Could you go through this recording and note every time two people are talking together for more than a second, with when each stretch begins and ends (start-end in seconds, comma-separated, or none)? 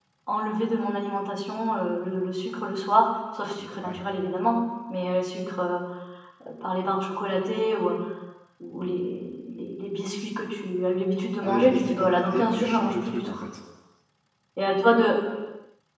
11.4-13.3